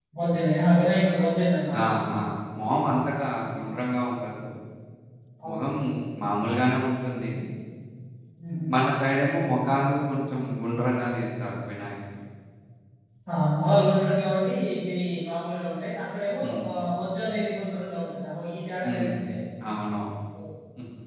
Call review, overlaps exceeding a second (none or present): none